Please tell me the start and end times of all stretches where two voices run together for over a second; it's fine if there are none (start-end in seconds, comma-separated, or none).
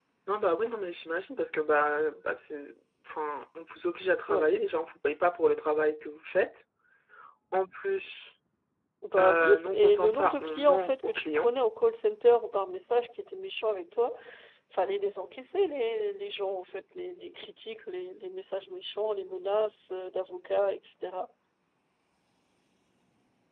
9.2-11.5